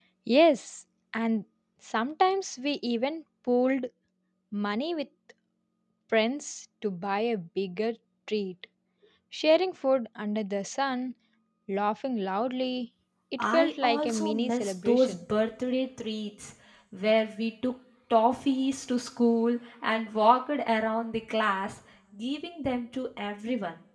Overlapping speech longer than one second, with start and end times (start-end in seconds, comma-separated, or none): 13.4-15.2